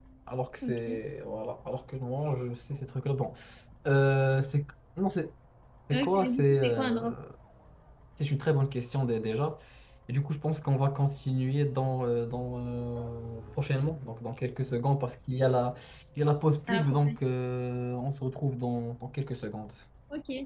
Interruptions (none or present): present